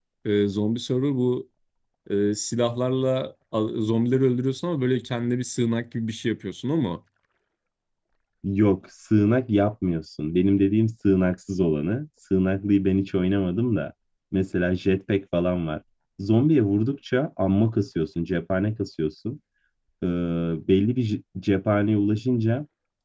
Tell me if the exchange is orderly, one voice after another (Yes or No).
Yes